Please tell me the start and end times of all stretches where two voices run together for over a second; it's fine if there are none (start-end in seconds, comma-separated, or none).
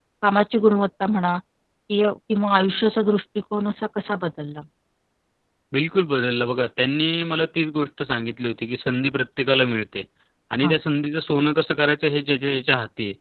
none